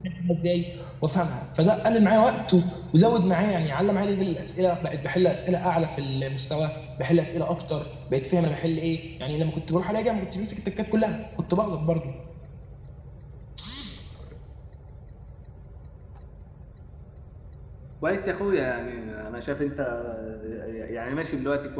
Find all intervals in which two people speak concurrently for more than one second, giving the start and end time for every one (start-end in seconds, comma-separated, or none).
none